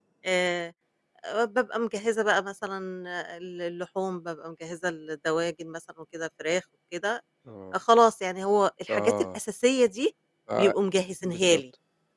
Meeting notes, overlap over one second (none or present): none